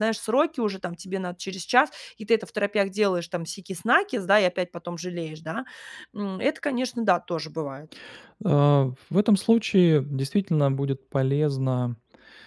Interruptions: none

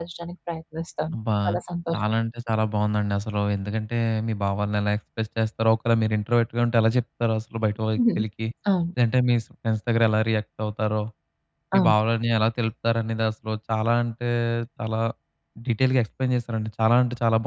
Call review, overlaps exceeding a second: none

